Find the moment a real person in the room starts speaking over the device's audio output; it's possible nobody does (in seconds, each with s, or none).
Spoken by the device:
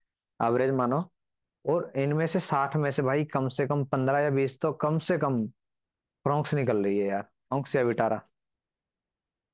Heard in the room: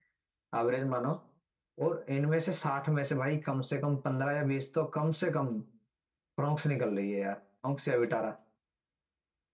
none